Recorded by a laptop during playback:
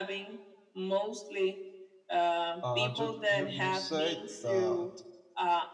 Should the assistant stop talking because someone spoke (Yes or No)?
Yes